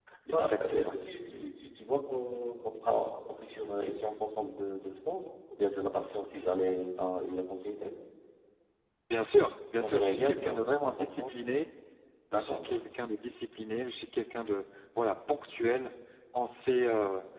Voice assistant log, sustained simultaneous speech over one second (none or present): present